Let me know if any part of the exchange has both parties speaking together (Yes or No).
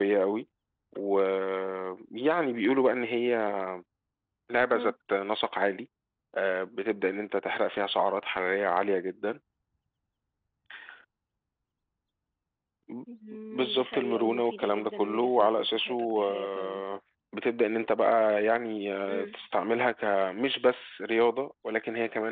Yes